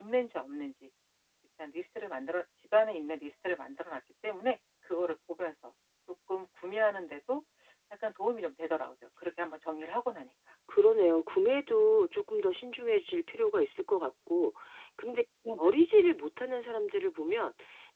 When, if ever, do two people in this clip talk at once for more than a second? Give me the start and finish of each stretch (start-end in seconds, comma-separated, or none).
none